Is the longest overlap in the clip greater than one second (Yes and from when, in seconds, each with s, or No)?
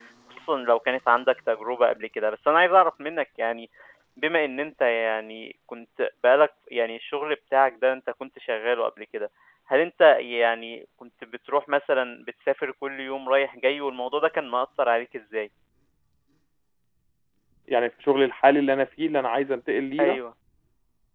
No